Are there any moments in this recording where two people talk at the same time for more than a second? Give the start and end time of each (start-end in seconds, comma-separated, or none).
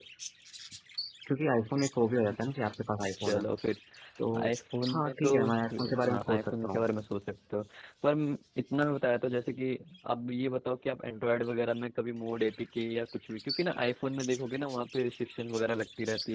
4.9-6.8